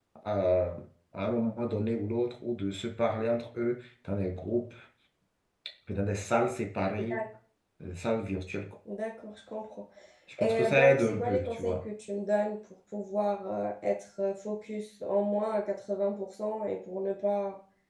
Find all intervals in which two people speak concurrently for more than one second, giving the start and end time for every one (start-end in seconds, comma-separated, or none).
10.4-11.8